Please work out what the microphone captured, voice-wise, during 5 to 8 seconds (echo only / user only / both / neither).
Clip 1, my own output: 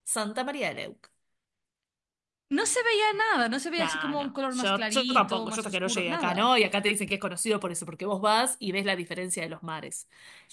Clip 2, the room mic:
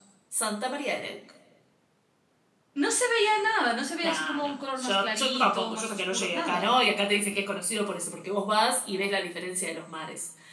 echo only